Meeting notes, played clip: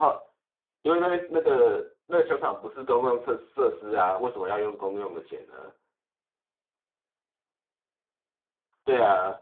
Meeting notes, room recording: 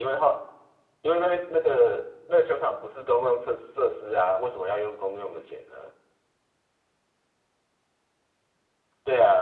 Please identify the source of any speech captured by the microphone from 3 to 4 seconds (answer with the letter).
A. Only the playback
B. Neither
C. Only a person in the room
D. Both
A